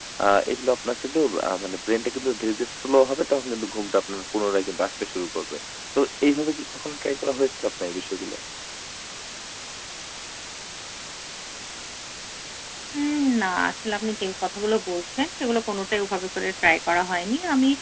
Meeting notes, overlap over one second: none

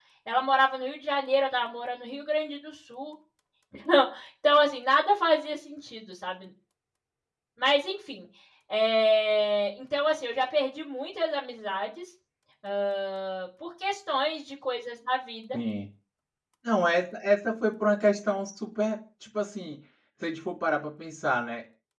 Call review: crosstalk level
none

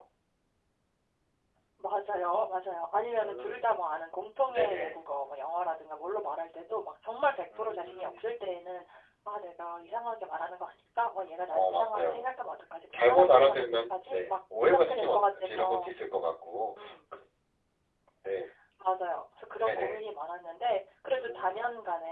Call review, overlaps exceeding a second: present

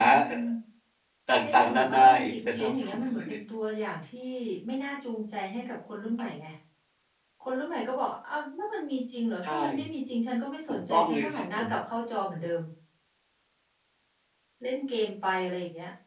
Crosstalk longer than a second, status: present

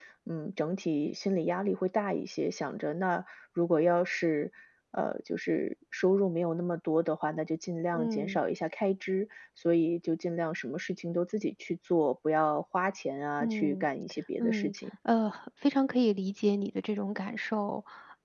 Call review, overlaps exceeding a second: none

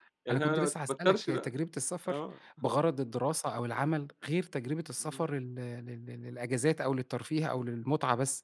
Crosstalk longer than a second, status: present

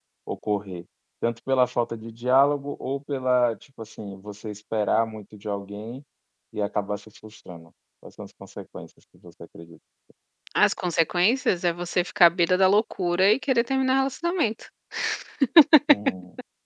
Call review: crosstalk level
none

